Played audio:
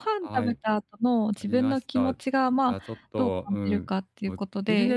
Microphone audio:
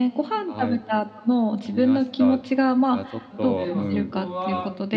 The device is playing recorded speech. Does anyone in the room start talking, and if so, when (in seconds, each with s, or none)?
3.3 s